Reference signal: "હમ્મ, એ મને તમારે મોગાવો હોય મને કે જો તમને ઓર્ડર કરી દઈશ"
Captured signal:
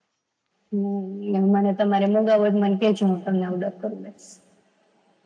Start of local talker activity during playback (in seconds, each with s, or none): none